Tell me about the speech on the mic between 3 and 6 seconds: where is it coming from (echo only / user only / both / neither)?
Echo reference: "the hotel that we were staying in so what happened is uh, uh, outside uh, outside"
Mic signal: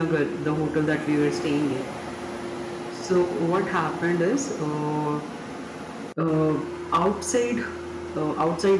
echo only